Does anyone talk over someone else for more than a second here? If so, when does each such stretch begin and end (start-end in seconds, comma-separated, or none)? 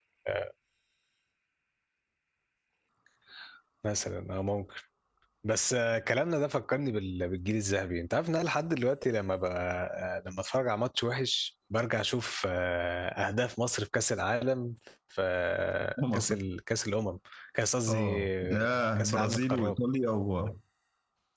17.9-19.8